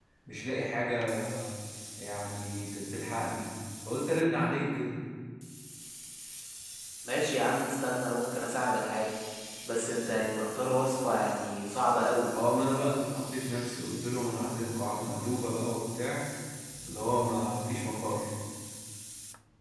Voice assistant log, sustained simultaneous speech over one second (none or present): none